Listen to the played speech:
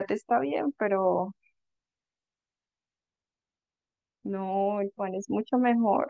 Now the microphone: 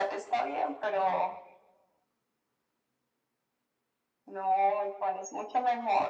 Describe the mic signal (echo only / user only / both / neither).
echo only